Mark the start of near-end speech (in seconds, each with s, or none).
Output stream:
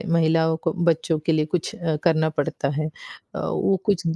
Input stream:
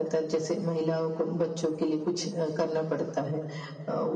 none